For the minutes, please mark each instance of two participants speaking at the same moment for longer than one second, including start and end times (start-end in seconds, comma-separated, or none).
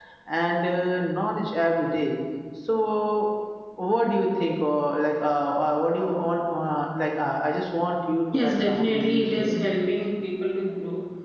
8.3-9.5